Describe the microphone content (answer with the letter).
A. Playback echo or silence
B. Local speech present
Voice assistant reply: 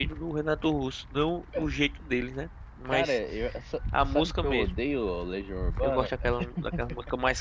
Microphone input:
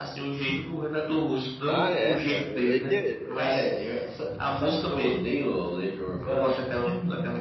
B